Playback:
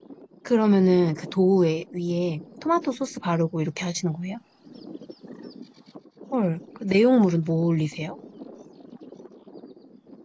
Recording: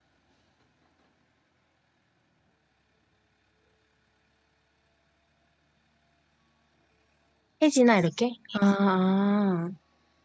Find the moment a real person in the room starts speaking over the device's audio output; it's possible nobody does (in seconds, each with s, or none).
7.6 s